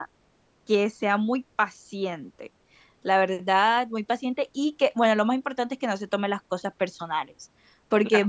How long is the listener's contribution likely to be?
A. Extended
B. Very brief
B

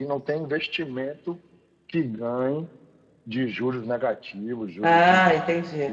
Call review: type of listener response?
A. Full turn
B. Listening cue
A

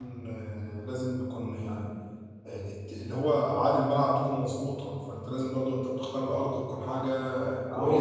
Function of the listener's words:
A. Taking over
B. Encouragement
A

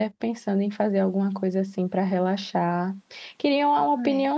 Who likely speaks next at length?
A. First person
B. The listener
A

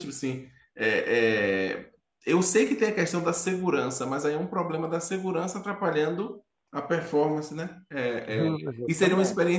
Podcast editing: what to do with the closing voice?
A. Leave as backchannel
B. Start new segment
A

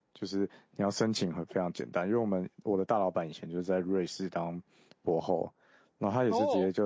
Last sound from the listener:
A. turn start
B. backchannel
B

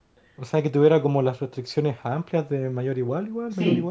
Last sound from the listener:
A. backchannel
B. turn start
B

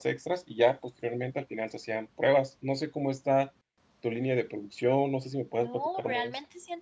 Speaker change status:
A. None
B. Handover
B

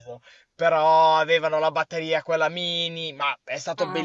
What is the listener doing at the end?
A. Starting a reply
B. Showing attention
B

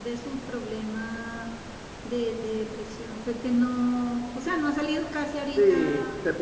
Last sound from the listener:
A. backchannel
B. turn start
B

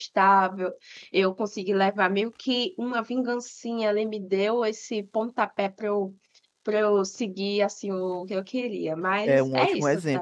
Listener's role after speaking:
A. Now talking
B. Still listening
A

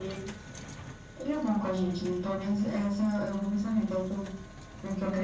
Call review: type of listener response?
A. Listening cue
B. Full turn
B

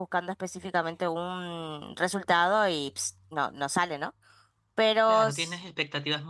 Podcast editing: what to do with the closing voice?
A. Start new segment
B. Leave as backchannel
A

